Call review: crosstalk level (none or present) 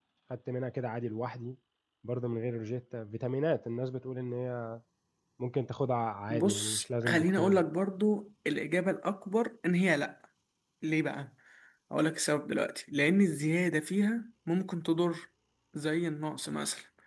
present